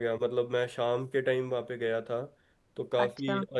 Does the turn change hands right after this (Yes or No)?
No